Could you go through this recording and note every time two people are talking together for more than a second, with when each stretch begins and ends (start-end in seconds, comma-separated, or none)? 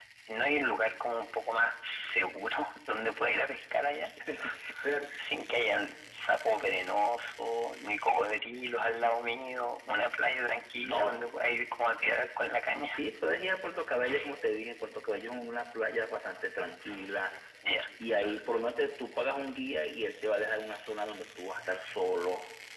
none